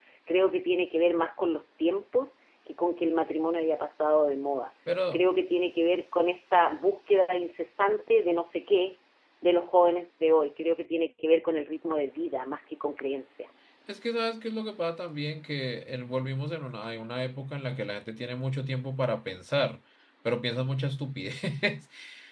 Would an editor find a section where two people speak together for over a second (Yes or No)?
No